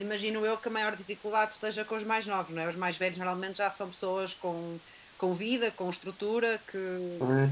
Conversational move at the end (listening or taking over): taking over